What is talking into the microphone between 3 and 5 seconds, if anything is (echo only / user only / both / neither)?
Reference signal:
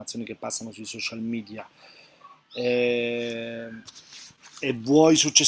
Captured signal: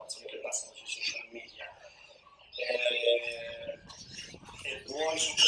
echo only